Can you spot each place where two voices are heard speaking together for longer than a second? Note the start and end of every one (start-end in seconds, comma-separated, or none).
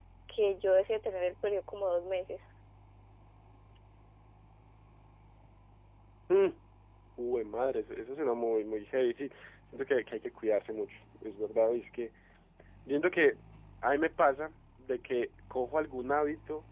none